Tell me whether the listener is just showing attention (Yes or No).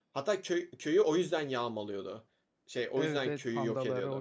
No